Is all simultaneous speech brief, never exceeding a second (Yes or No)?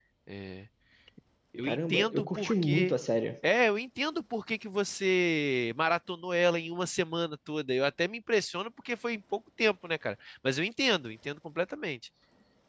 No